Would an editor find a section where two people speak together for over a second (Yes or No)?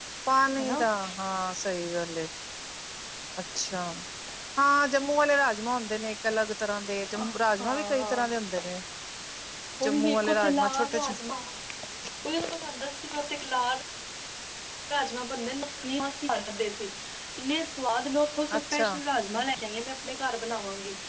Yes